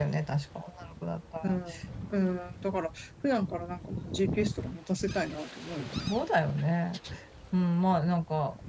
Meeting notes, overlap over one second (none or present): none